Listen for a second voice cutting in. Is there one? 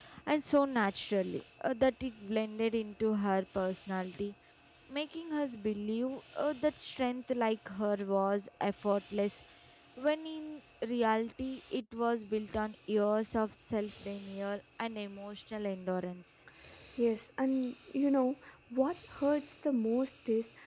No

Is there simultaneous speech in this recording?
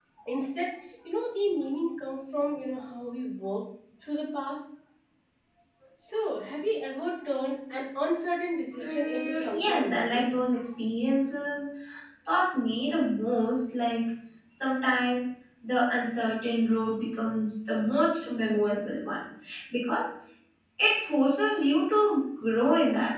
Yes, from 8.8 s

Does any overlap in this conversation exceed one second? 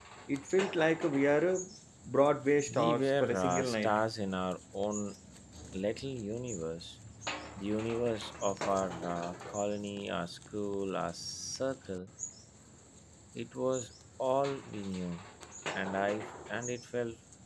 Yes, from 2.7 s

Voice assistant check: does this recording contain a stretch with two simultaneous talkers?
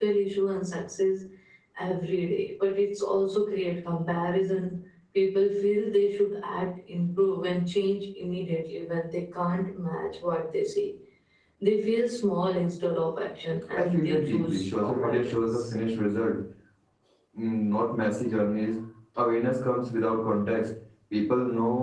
Yes, from 13.8 s

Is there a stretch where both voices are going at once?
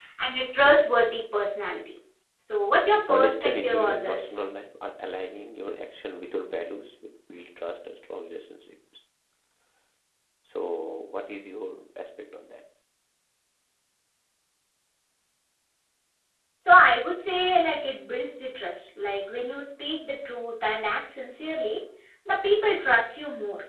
Yes, from 3.1 s

